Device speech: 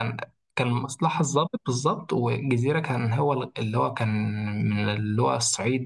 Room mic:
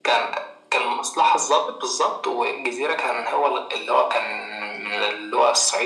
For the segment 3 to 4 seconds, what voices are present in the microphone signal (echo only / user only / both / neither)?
echo only